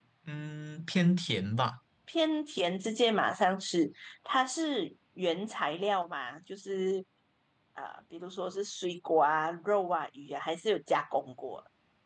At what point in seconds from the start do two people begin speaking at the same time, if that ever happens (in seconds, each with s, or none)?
none